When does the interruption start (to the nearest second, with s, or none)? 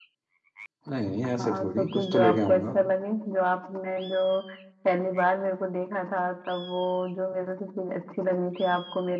1 s